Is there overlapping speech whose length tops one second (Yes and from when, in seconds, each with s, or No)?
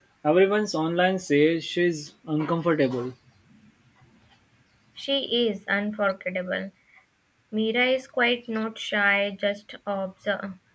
No